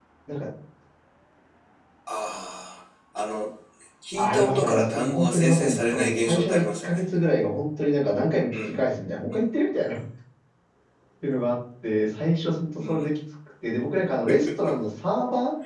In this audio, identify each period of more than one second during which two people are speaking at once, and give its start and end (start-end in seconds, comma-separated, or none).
4.1-7.0